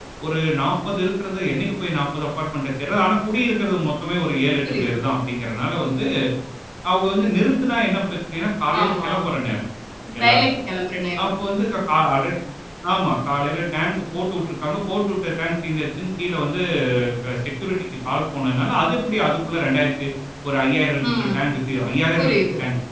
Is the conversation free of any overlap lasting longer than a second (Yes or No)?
Yes